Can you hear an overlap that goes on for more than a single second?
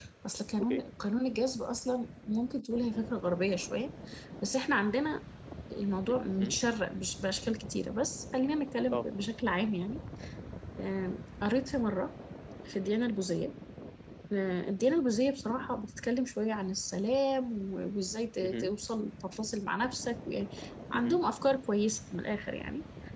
No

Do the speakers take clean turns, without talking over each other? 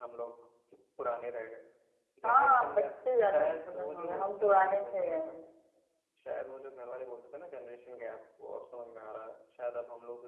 No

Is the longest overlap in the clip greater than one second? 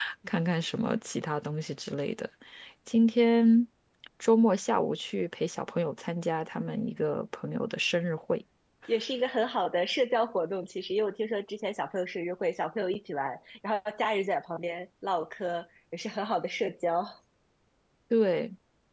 No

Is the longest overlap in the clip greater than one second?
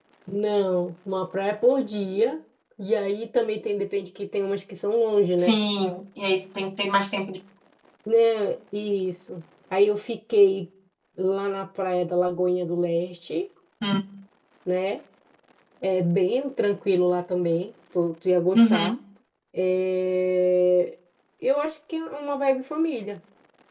No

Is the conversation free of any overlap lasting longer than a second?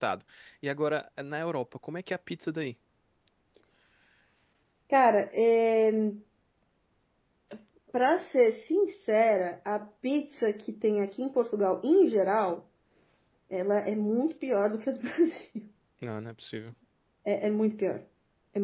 Yes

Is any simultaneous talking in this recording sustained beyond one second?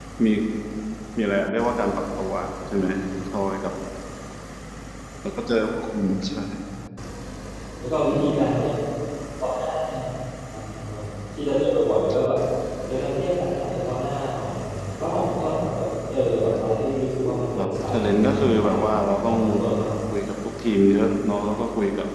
Yes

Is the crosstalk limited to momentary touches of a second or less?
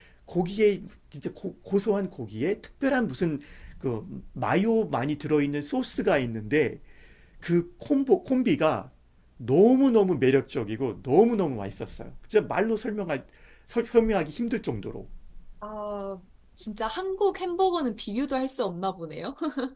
Yes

